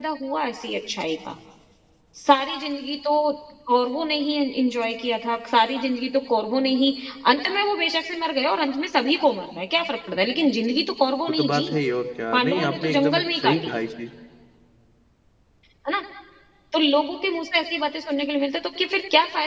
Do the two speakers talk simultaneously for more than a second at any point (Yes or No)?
Yes